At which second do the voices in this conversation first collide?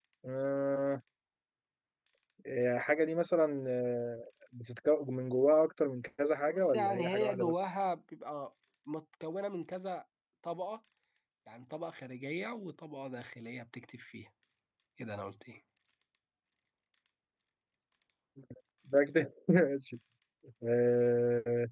6.5 s

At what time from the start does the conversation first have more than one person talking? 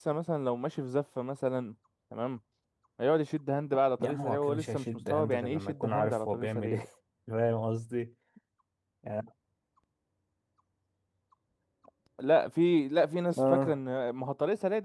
4.0 s

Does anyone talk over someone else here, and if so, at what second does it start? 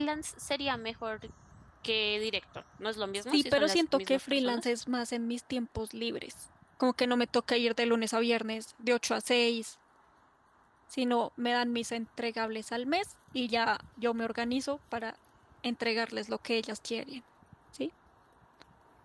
3.3 s

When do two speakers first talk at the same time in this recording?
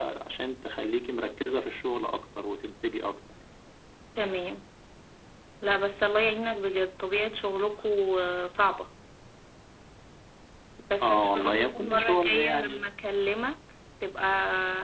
11.0 s

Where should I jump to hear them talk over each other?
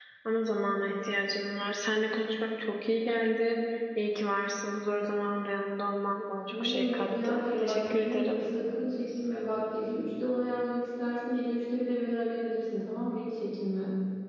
6.5 s

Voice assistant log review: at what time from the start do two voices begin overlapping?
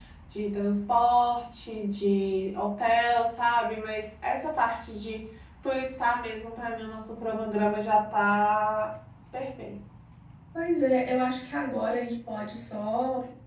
none

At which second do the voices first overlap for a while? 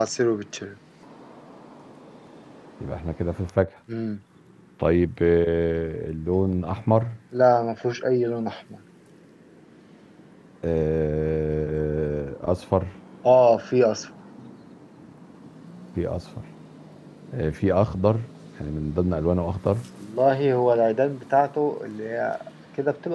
none

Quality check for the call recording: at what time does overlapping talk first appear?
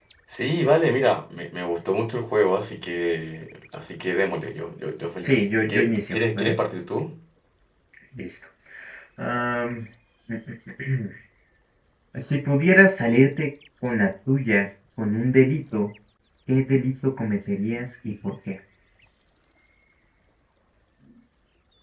5.2 s

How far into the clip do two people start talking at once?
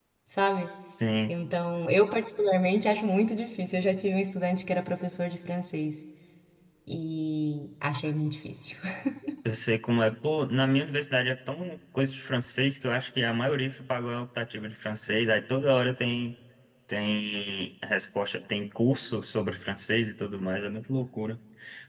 none

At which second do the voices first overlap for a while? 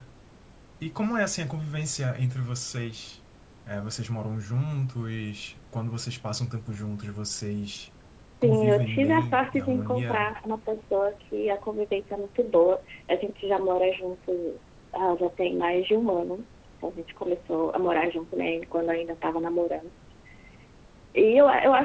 8.4 s

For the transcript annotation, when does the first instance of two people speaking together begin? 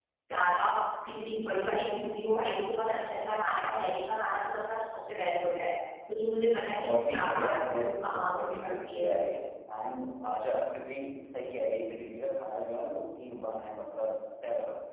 6.7 s

